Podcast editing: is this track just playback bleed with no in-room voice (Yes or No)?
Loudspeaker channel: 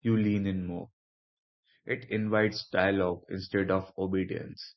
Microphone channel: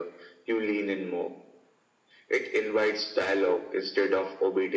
Yes